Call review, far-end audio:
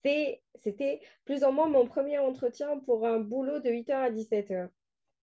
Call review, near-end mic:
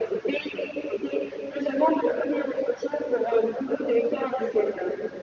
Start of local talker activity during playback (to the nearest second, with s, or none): none